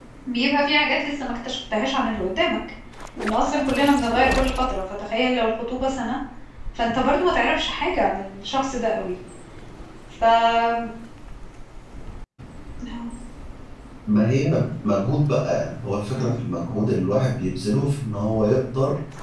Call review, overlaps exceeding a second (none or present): none